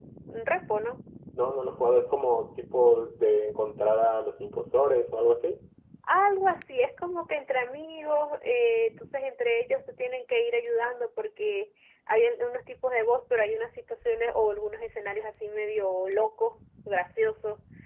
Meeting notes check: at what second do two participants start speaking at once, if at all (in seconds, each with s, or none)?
none